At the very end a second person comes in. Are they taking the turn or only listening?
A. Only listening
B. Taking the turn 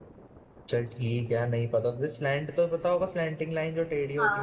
B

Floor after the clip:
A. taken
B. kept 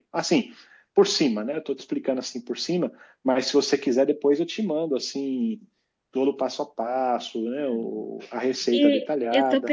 A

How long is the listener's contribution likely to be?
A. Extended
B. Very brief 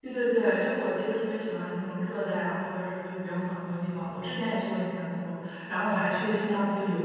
B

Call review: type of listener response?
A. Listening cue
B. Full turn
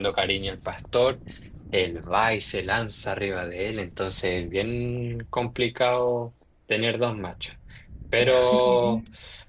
A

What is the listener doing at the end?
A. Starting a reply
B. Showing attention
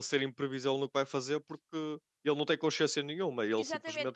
A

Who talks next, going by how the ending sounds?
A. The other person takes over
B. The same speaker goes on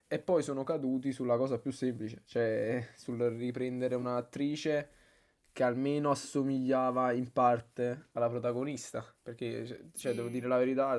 B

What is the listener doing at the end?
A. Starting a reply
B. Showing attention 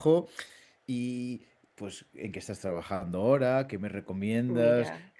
B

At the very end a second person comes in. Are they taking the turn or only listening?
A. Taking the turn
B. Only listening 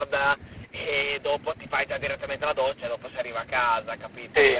A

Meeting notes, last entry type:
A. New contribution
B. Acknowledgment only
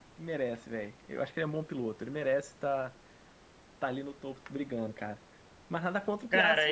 A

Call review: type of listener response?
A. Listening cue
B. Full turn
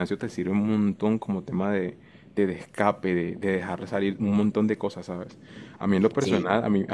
A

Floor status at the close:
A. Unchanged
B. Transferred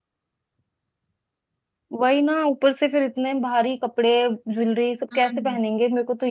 A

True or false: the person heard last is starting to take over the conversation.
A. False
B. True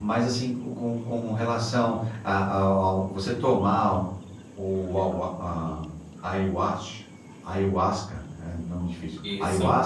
A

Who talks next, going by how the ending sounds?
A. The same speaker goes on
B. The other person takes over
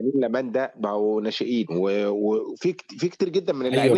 B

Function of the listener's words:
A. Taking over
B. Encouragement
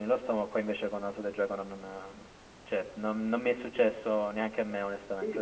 A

